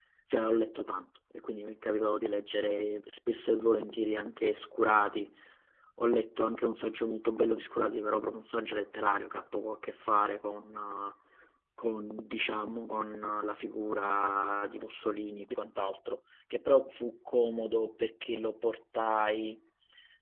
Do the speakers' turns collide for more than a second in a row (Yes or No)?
No